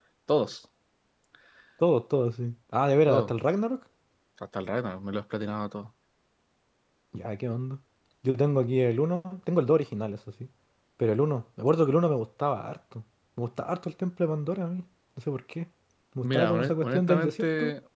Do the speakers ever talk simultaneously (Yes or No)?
Yes